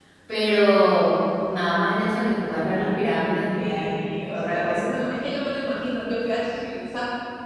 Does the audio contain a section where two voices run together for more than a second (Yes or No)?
Yes